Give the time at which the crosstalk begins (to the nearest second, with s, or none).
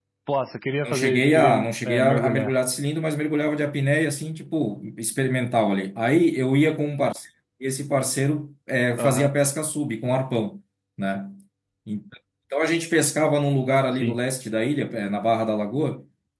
1 s